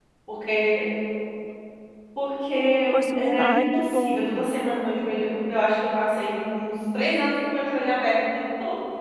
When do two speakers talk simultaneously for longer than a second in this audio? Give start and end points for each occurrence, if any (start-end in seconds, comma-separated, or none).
3.1-4.5